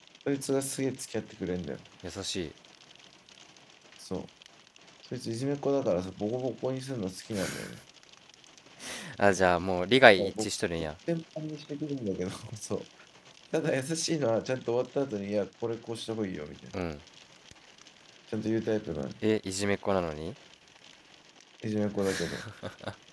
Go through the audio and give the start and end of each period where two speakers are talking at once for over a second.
none

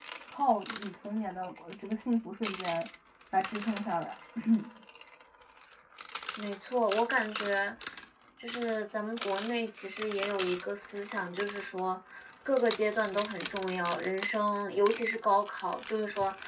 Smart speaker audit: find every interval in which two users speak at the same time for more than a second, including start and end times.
none

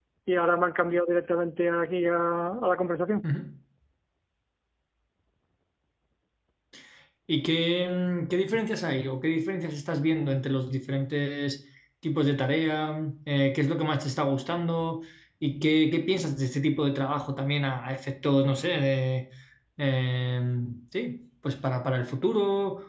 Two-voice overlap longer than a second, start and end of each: none

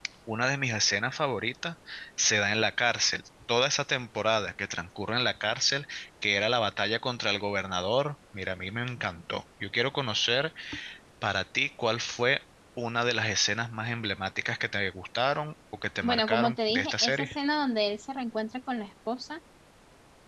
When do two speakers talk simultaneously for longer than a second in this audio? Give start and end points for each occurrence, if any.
16.0-17.4

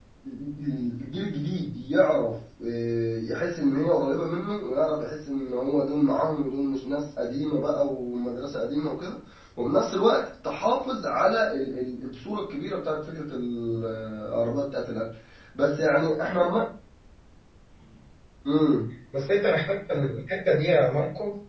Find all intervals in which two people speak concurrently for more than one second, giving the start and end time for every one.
none

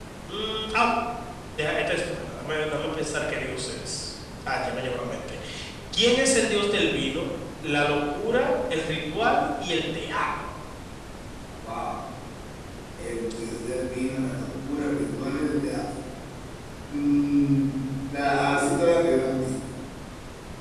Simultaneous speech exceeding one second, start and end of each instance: none

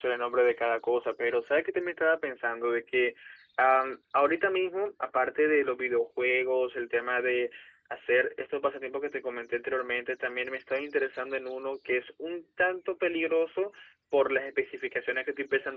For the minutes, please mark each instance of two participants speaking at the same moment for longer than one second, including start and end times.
none

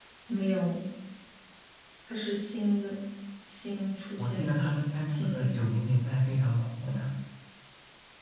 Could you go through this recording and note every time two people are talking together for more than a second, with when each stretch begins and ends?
4.2-5.6

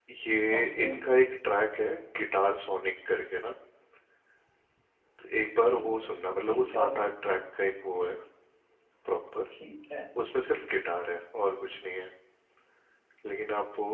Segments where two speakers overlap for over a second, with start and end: none

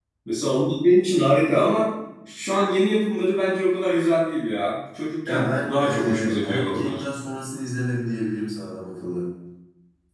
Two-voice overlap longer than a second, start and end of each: 5.2-7.0

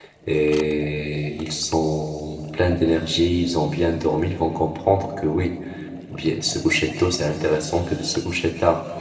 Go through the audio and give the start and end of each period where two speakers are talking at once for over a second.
none

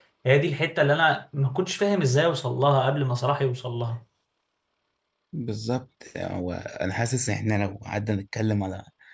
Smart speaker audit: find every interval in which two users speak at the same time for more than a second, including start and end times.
none

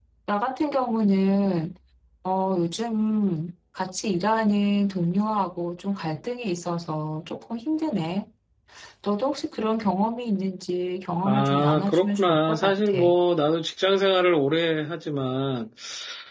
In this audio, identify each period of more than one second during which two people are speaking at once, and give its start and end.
11.2-13.0

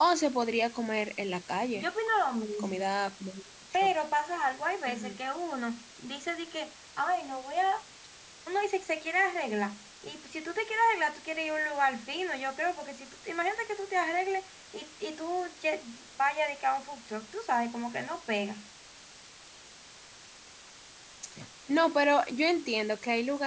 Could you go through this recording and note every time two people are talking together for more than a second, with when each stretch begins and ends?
none

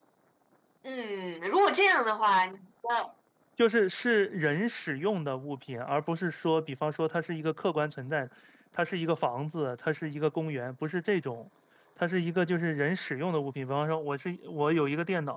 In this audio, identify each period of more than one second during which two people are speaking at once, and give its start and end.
none

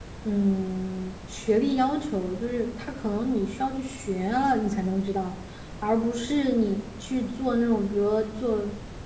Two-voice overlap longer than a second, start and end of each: none

